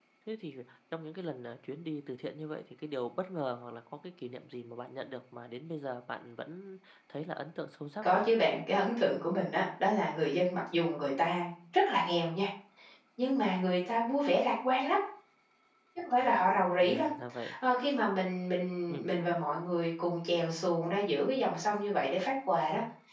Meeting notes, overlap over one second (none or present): none